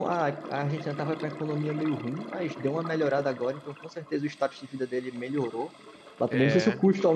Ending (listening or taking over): listening